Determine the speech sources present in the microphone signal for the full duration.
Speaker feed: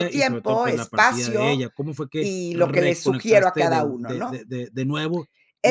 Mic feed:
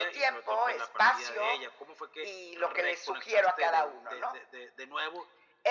echo only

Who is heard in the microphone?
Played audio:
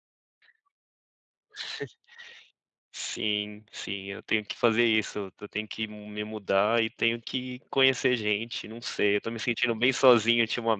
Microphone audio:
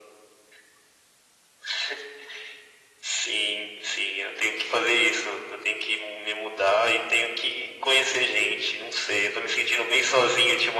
echo only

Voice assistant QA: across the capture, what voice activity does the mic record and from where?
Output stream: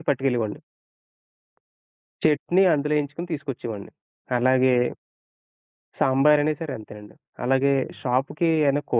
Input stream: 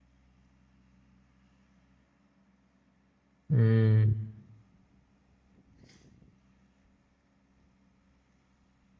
user only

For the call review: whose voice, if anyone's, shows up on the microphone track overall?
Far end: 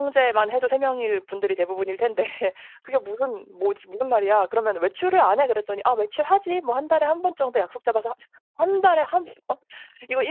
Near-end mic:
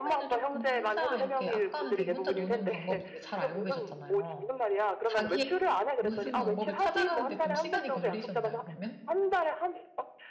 both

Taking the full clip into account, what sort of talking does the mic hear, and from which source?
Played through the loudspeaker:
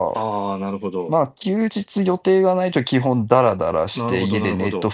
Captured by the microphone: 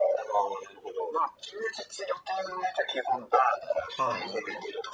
both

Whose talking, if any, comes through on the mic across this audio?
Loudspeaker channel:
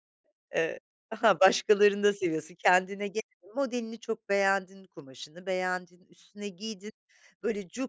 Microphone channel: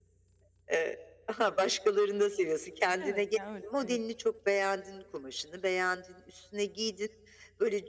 both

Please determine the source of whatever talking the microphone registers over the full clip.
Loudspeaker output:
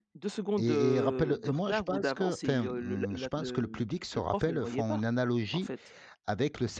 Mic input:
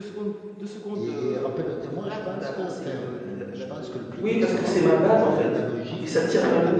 both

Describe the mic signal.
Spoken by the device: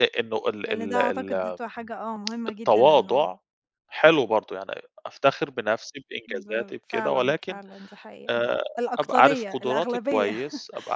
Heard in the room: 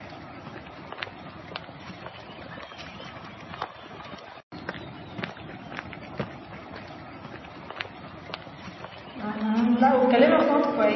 user only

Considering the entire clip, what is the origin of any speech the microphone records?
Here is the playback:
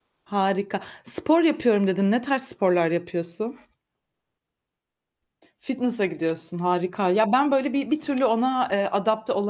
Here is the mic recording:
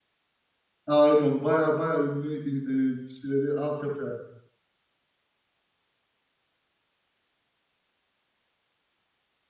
user only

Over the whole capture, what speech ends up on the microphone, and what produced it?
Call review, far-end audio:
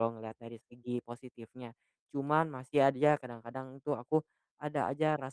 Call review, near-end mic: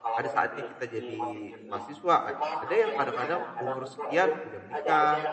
both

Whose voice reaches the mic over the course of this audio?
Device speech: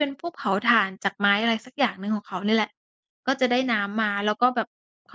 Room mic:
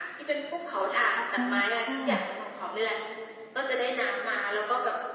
both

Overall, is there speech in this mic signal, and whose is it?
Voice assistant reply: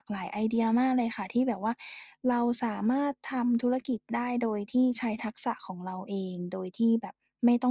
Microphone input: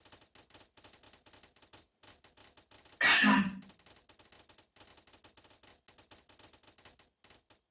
user only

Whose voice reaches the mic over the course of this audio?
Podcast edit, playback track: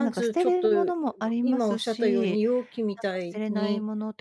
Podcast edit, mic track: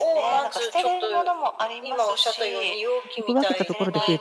both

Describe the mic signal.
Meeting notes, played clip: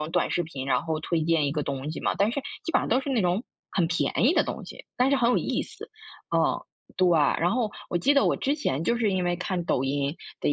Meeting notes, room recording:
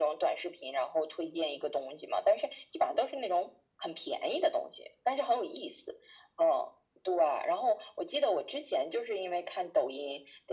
echo only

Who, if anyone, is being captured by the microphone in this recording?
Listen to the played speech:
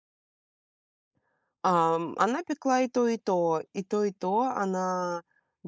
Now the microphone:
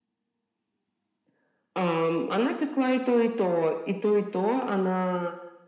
echo only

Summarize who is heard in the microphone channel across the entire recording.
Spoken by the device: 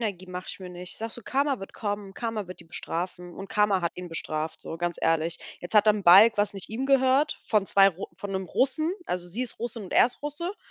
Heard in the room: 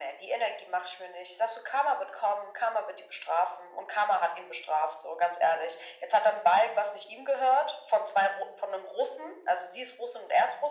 echo only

